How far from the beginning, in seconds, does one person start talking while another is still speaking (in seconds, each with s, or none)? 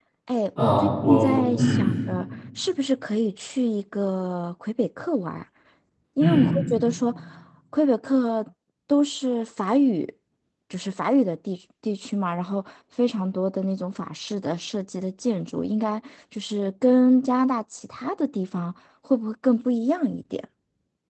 0.6 s